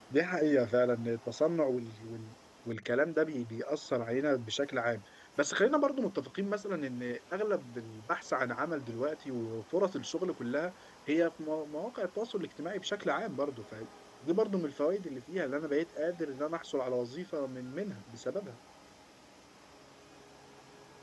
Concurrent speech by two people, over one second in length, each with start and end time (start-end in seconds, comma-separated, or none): none